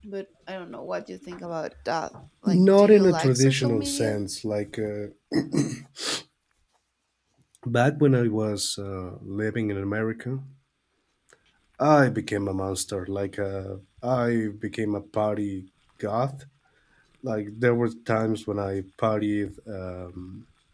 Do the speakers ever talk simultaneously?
Yes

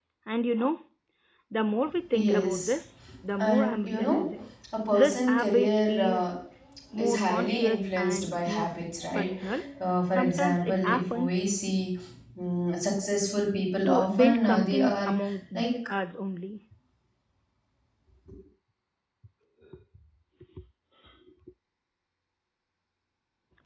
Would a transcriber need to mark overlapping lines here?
Yes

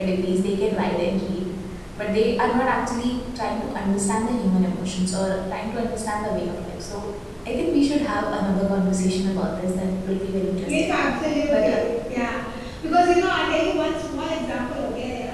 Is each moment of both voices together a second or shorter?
Yes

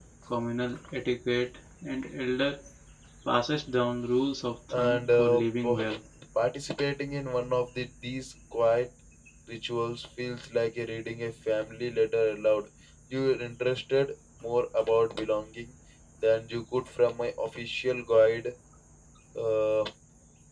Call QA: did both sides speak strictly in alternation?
No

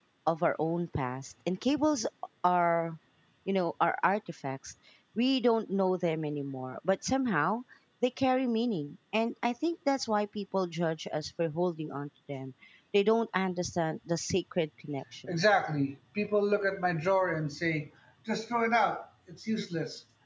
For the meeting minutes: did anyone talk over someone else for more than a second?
No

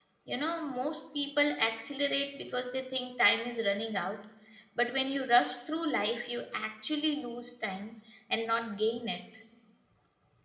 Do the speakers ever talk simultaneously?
No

